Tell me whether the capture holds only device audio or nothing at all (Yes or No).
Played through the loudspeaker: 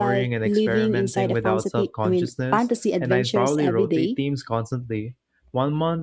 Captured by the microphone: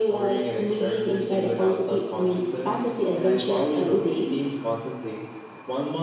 Yes